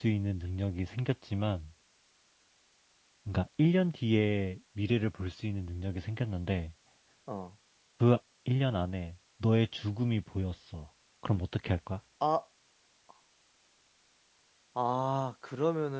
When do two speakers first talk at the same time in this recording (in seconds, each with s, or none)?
none